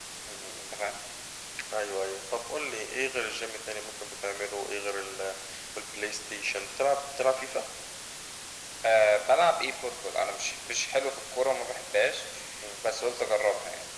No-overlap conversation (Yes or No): Yes